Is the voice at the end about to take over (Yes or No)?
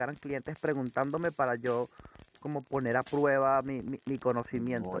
Yes